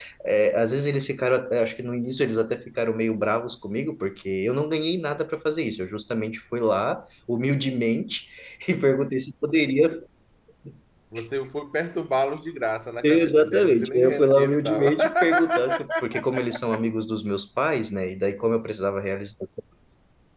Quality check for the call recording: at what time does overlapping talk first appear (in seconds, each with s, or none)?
13.0 s